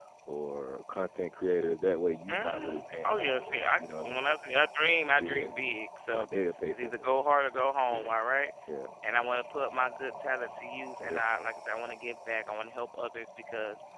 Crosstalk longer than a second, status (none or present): present